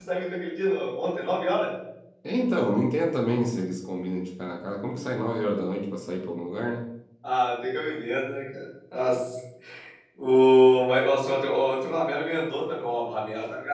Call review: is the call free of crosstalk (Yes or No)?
Yes